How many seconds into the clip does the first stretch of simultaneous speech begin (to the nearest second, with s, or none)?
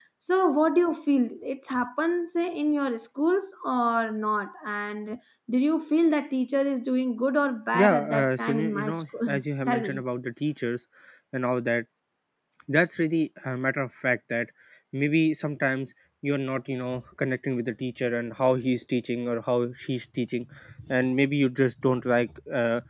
8 s